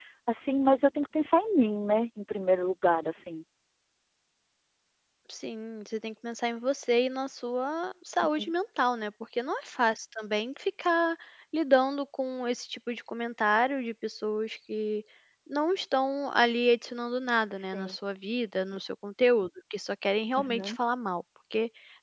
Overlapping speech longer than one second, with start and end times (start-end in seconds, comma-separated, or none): none